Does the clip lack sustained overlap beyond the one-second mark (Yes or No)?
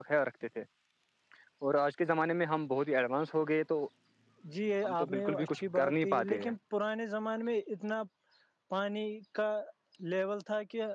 No